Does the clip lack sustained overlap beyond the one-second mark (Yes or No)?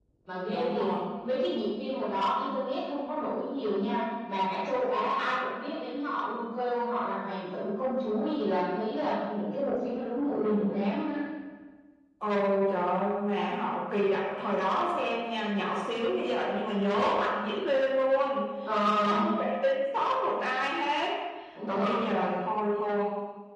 Yes